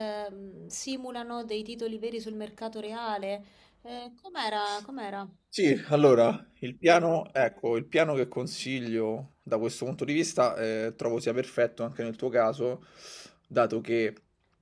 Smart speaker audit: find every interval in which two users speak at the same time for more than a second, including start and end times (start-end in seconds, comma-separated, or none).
none